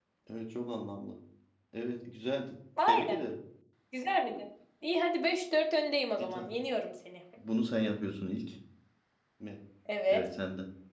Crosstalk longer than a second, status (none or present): none